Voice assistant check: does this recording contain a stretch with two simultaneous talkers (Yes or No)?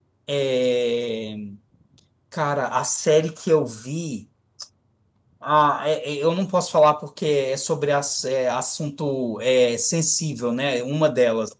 No